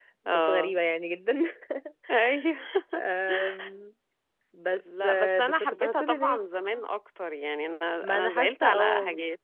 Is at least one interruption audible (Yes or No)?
Yes